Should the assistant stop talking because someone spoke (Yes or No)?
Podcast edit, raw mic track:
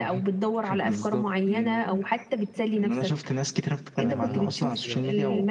Yes